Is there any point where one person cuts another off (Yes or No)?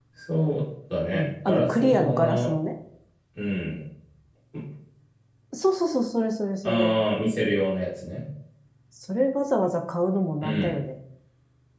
Yes